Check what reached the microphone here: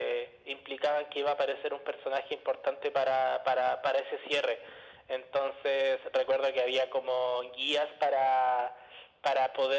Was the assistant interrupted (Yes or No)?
No